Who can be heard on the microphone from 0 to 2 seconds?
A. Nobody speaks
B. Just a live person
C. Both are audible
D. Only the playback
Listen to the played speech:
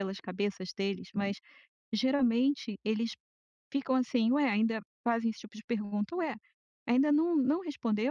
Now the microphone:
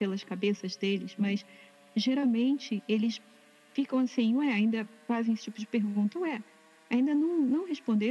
D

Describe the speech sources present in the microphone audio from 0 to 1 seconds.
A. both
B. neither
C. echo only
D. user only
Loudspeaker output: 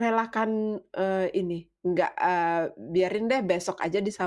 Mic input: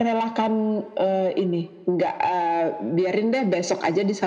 C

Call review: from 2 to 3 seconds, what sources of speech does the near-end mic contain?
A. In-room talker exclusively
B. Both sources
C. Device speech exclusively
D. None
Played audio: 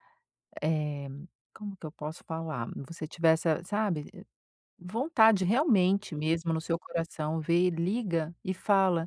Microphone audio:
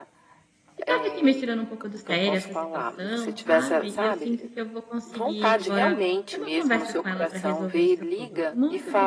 B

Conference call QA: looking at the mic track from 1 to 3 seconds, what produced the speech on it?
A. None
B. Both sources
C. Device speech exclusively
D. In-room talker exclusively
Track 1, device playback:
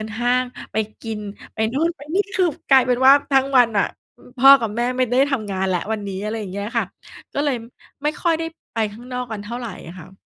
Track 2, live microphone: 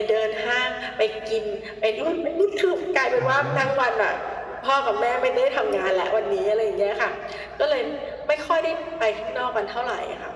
C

